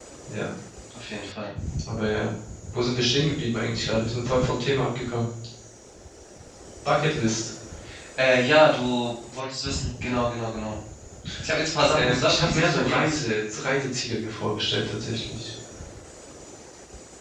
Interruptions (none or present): present